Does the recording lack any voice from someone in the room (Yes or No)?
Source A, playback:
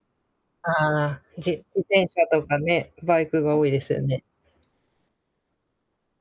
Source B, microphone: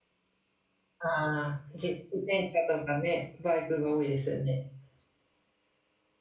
Yes